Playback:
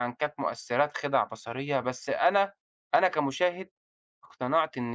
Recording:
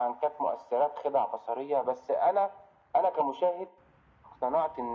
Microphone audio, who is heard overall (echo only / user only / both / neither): echo only